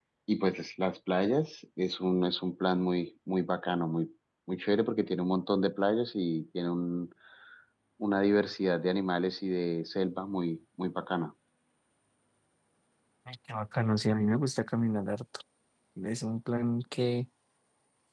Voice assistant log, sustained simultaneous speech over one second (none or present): none